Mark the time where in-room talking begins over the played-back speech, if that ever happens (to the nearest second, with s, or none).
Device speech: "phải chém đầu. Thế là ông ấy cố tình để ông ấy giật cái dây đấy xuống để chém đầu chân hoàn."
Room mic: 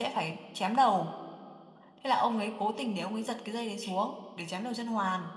none